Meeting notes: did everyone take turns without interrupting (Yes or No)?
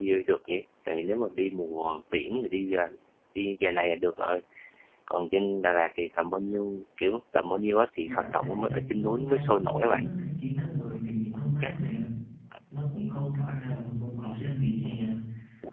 No